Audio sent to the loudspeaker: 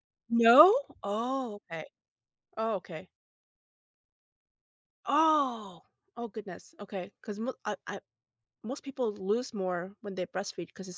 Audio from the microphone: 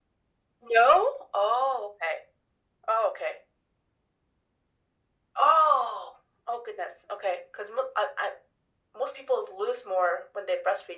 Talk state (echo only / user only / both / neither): echo only